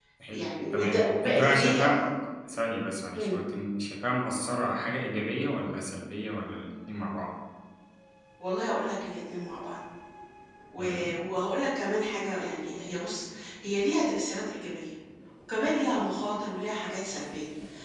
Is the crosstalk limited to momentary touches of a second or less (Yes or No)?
No